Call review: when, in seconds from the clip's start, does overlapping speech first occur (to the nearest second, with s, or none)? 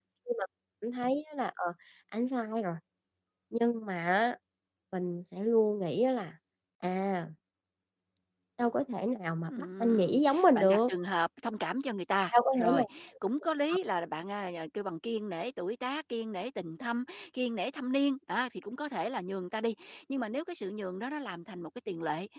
9 s